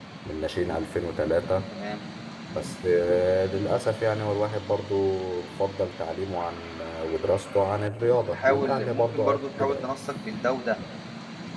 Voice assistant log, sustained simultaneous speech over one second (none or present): present